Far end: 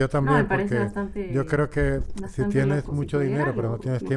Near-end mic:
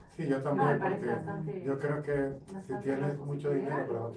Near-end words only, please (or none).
Em,